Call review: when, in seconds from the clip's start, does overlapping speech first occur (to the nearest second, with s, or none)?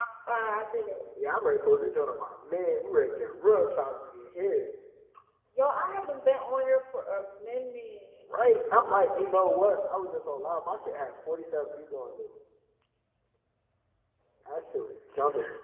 none